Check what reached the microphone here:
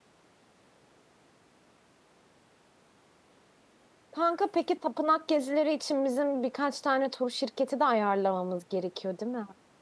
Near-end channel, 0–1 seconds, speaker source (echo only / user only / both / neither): neither